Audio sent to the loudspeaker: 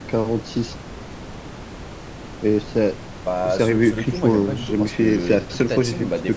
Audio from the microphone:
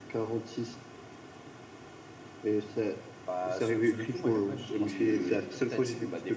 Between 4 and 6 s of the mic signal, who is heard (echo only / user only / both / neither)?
both